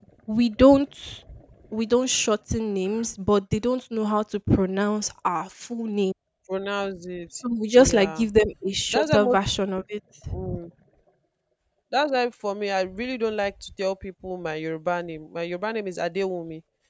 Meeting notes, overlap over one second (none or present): none